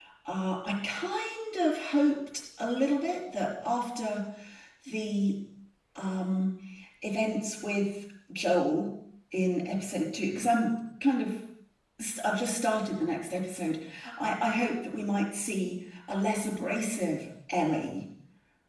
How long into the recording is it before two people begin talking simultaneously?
none

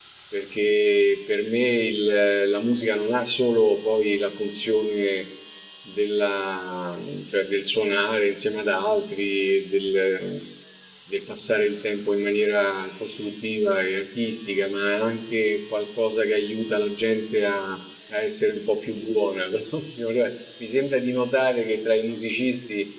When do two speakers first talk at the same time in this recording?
none

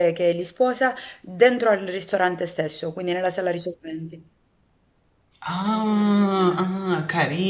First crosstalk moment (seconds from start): none

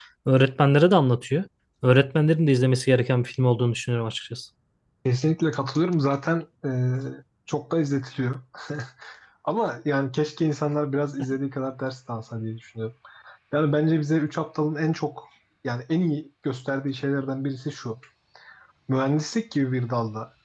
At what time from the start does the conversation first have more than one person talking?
none

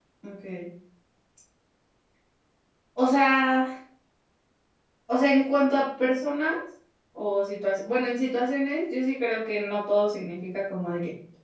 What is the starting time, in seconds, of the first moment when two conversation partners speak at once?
none

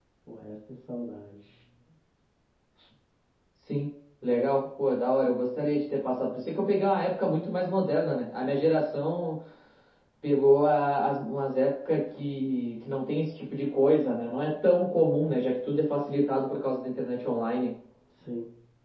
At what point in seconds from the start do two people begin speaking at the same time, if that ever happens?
none

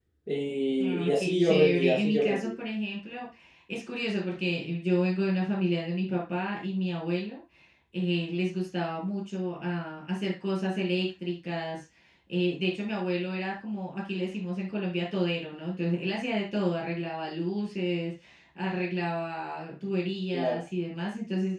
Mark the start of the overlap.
0.8 s

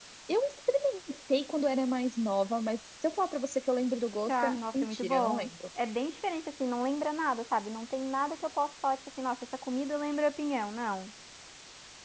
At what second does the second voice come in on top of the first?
4.3 s

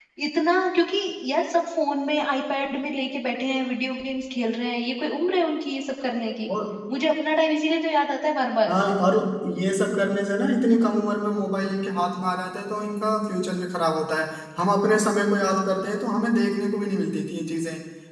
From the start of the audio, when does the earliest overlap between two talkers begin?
none

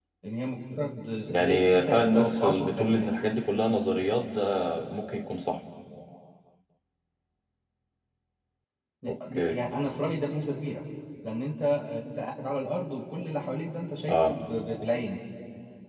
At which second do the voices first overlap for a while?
1.3 s

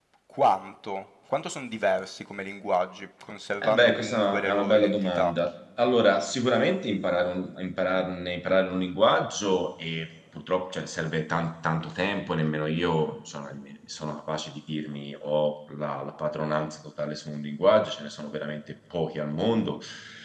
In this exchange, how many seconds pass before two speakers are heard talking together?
3.6 s

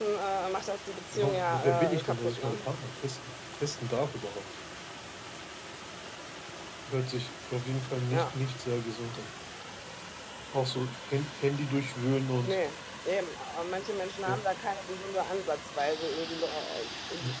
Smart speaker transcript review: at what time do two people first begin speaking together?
1.1 s

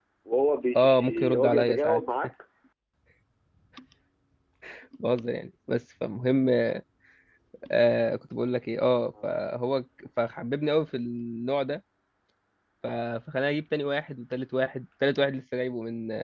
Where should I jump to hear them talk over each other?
0.8 s

